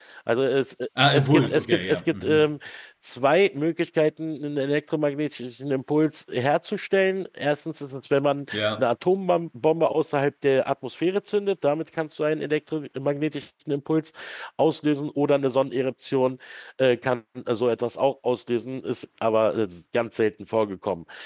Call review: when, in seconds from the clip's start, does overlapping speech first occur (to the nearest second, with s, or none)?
1 s